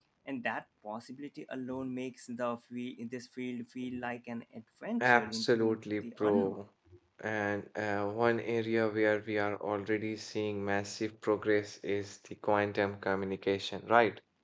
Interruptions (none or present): present